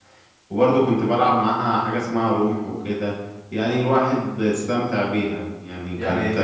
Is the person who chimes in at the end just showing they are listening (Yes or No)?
No